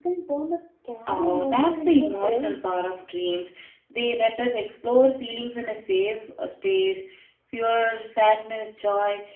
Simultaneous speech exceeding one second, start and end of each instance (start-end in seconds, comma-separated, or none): 1.1-2.6